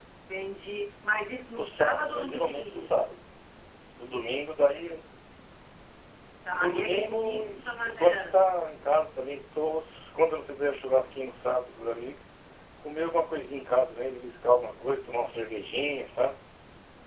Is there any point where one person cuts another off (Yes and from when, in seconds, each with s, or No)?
Yes, from 1.6 s